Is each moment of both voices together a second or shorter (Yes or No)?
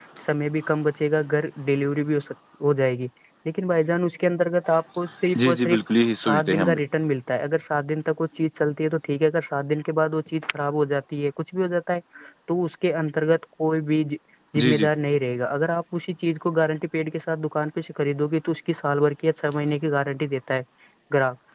Yes